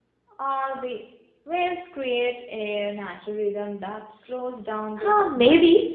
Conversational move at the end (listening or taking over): taking over